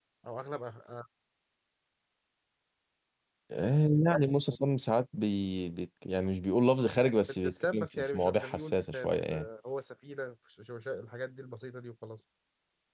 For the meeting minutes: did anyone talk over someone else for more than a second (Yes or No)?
Yes